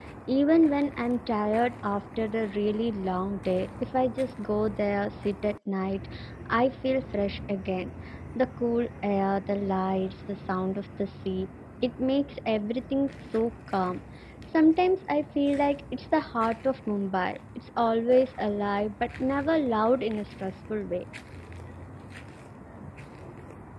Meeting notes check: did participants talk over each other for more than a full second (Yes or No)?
No